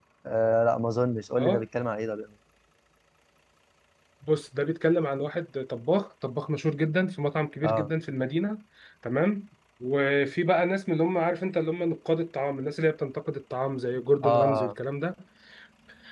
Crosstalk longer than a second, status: none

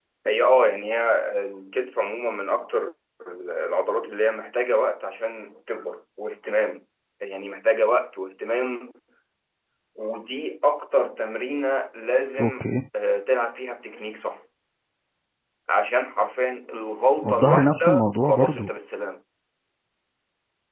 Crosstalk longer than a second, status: present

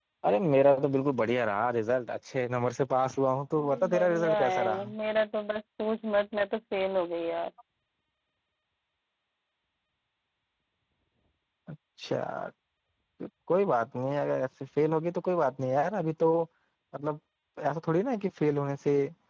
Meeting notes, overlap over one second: present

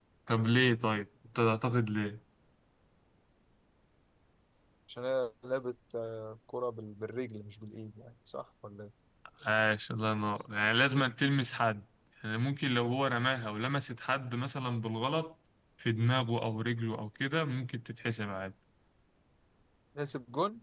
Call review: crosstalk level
none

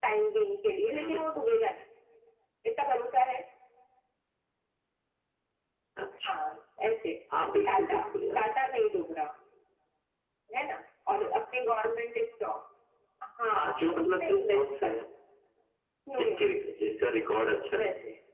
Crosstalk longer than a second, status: present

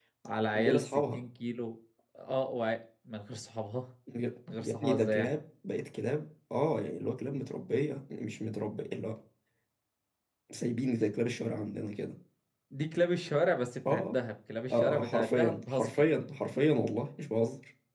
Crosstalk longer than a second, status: present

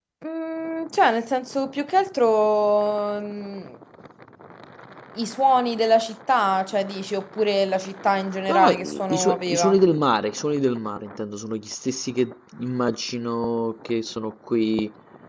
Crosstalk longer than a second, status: present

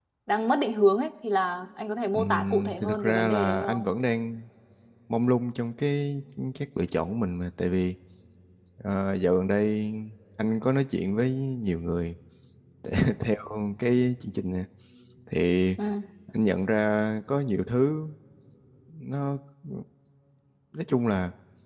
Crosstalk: present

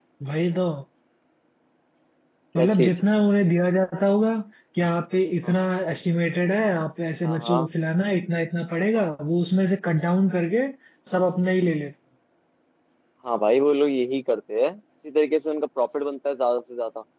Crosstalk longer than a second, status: none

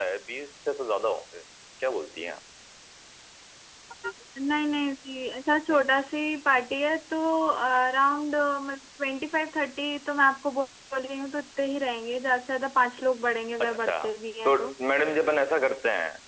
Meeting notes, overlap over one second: none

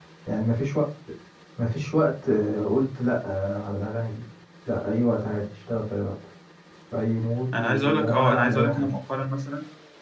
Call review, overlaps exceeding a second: present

